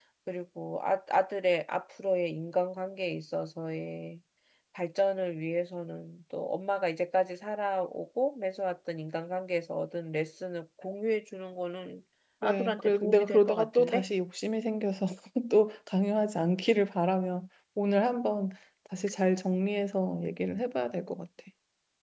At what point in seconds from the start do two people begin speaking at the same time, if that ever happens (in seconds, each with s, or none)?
12.4 s